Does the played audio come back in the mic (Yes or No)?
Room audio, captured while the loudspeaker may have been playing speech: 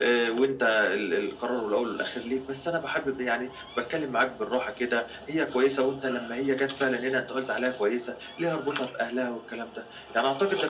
Yes